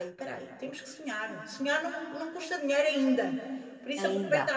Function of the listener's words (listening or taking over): listening